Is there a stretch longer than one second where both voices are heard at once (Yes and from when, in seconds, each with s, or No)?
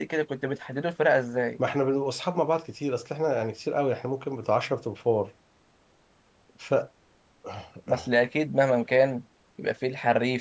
No